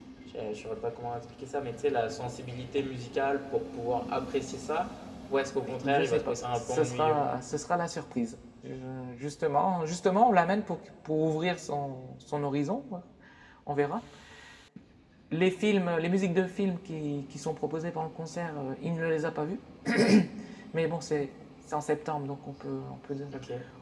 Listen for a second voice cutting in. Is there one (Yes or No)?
Yes